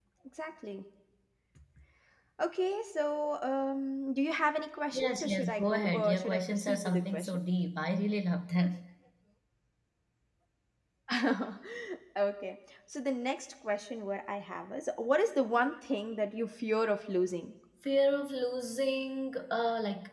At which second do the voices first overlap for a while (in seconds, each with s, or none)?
4.9 s